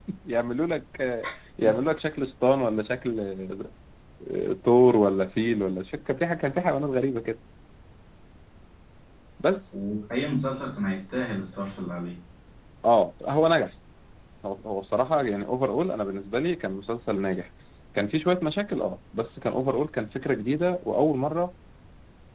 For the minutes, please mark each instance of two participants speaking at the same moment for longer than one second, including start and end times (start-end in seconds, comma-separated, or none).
none